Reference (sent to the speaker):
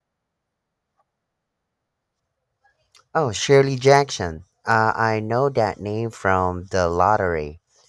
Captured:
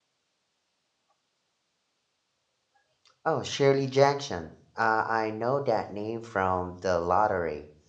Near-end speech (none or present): none